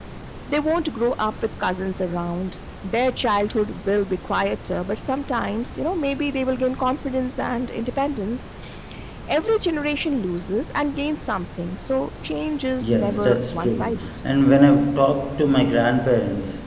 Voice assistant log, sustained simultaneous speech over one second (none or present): present